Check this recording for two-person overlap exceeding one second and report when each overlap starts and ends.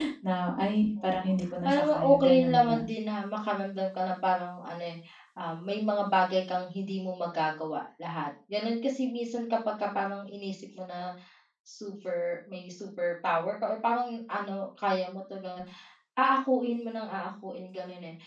1.0-2.8

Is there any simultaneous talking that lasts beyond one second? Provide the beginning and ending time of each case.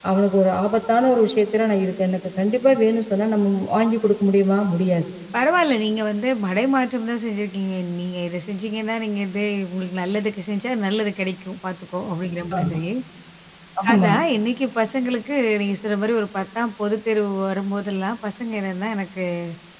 none

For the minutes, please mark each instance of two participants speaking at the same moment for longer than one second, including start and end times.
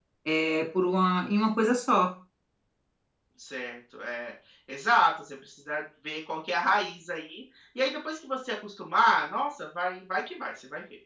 none

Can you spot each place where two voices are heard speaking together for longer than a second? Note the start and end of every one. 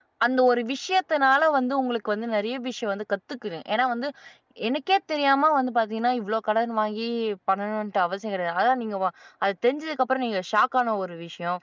none

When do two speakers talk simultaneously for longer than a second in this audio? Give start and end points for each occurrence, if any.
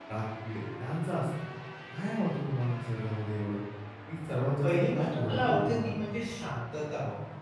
4.6-6.1

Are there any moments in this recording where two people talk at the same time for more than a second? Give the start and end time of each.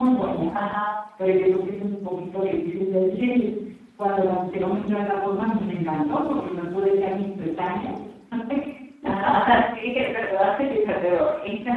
none

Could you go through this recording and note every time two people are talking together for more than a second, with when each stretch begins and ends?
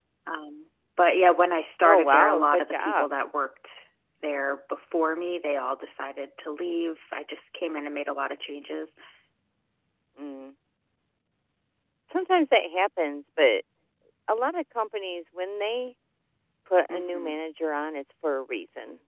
1.8-3.1

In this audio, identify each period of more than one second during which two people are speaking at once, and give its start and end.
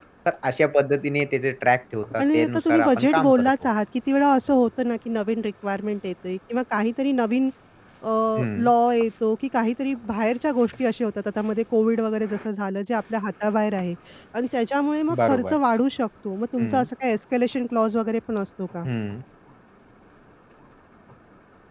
2.2-3.5

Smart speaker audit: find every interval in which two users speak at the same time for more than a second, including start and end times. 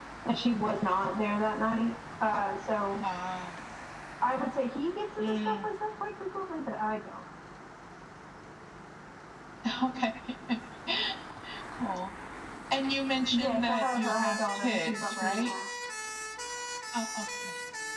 13.3-15.5

